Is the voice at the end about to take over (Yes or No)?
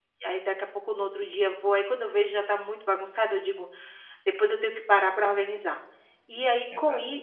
No